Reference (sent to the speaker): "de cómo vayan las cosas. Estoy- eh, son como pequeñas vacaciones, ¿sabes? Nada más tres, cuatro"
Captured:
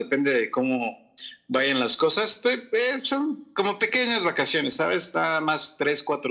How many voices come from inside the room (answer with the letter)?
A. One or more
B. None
B